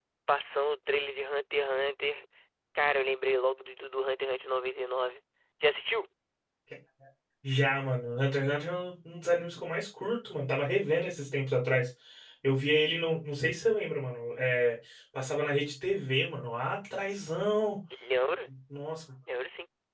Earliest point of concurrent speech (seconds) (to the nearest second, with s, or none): none